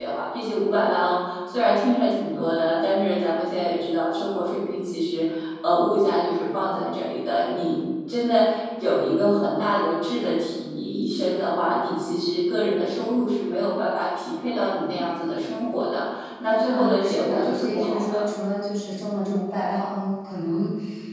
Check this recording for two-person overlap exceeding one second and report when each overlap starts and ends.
16.7-18.2

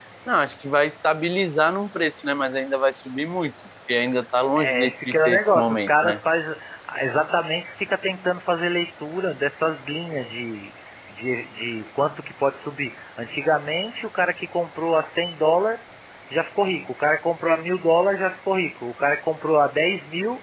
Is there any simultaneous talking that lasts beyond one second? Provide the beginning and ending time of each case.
4.6-6.2

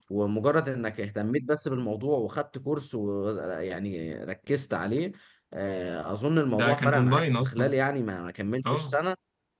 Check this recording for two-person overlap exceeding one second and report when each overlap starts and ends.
6.5-7.7

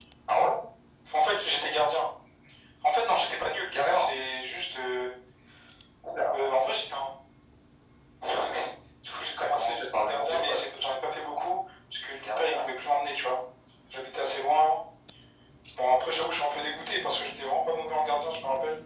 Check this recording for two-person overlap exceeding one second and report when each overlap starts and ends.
9.4-10.6

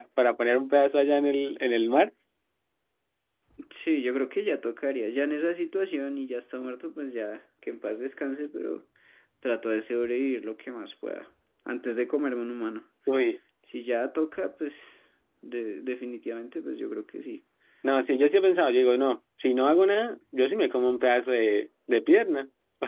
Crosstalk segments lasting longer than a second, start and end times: none

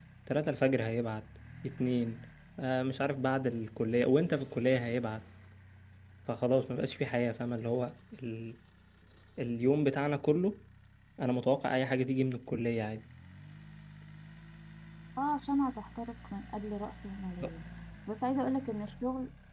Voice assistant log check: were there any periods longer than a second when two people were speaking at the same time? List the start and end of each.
none

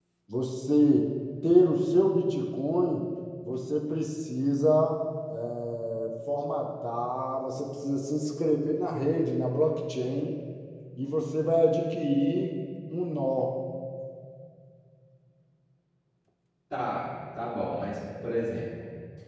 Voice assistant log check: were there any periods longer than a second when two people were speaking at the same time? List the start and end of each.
none

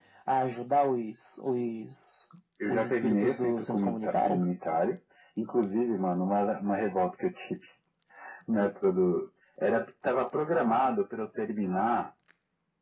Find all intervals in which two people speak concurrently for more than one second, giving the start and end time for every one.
2.7-4.4

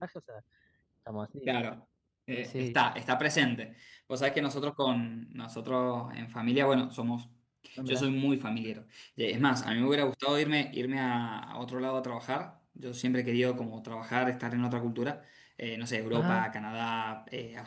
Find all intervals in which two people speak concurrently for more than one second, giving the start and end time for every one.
none

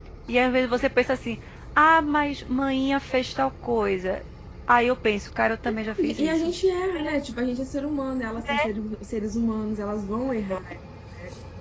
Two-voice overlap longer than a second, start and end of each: none

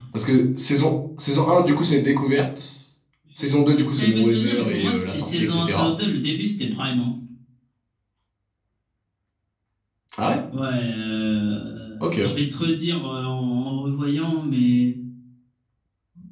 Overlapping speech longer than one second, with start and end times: 3.4-5.9

